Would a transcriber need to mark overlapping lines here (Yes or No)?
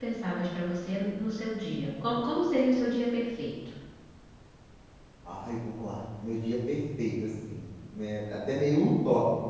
No